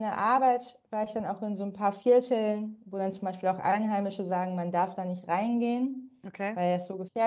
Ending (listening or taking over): listening